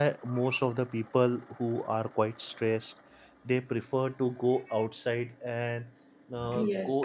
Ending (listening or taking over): listening